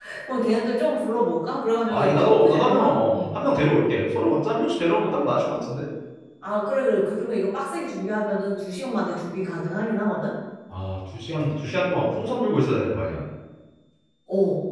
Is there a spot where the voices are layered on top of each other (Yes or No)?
Yes